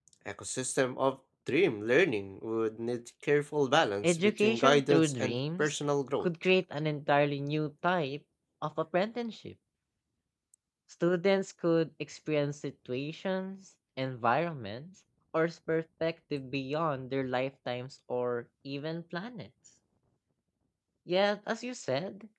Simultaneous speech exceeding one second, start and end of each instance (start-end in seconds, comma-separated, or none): 4.0-5.7